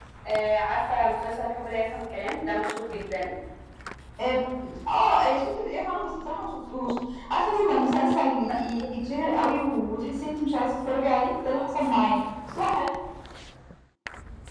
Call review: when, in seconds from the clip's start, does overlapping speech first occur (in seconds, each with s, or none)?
none